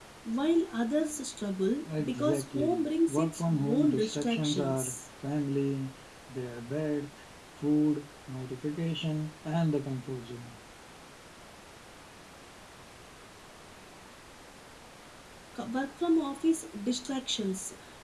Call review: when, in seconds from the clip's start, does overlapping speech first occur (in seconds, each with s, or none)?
1.9 s